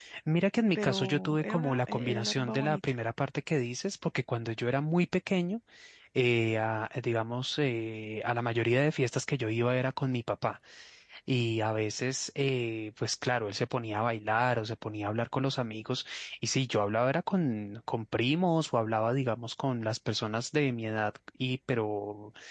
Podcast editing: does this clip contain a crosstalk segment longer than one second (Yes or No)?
Yes